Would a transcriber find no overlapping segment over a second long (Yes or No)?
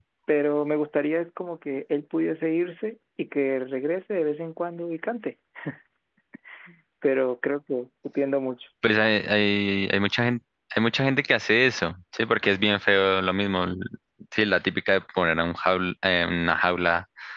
Yes